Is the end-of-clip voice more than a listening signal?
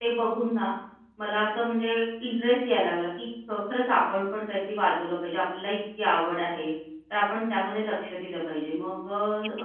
Yes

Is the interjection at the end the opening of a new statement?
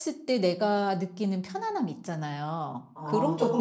Yes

